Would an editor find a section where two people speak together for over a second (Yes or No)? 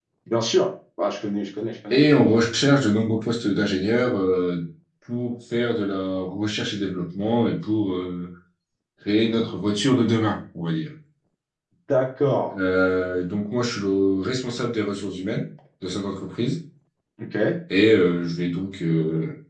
No